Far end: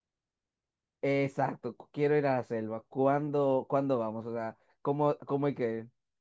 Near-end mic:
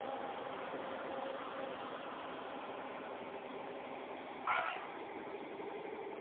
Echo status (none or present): none